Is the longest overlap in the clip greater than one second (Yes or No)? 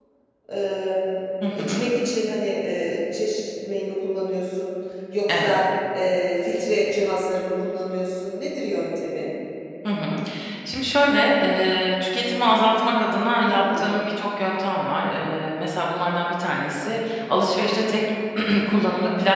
No